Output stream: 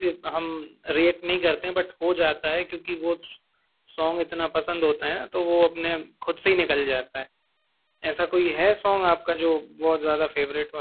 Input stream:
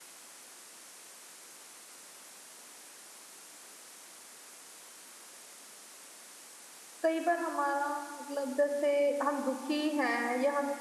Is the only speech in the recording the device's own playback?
No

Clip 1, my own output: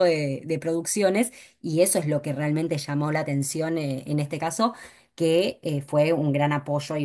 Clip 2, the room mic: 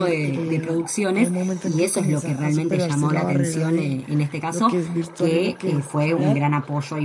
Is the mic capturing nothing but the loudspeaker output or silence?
No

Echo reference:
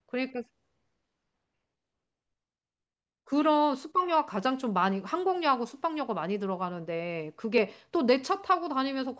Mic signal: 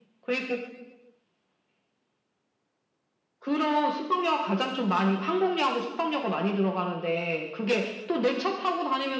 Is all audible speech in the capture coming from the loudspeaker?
Yes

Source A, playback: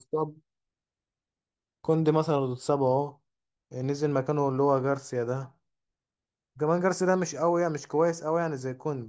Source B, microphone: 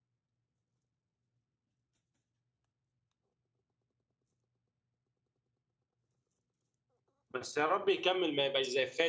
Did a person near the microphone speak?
Yes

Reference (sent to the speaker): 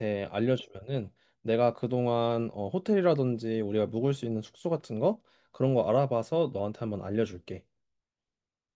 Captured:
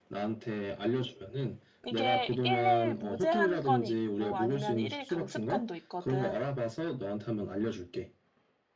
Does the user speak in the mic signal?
Yes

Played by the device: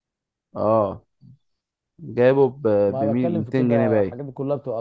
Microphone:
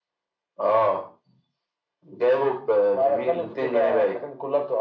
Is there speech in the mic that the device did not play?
No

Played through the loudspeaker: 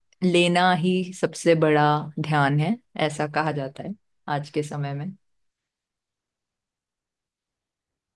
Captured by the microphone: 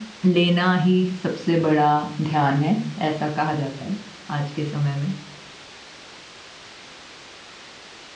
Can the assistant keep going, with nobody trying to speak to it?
Yes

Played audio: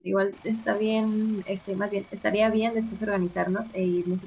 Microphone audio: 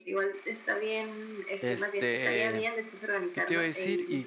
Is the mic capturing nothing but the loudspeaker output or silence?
No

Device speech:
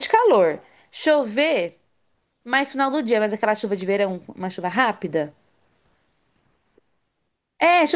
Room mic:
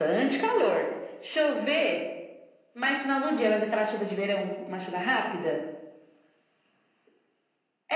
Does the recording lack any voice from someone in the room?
Yes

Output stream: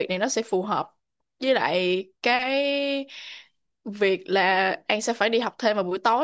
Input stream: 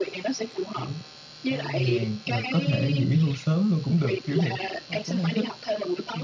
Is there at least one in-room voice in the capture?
Yes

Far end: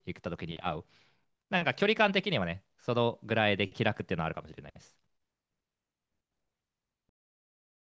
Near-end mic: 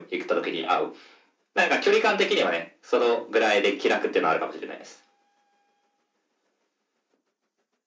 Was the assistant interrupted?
No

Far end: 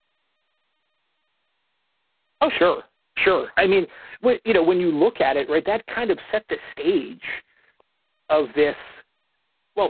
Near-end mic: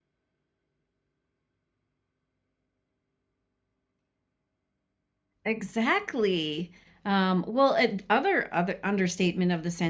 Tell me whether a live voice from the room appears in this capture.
Yes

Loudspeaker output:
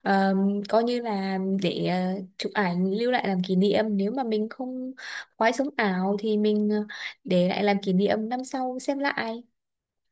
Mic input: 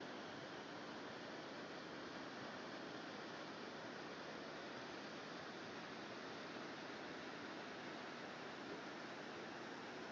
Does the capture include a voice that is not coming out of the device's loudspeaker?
No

